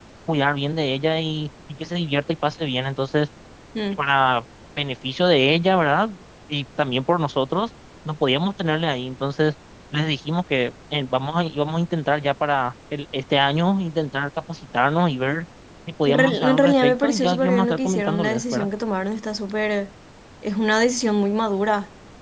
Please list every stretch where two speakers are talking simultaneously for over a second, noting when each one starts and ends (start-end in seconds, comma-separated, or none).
16.1-18.7